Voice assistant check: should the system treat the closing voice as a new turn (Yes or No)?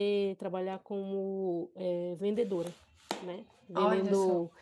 No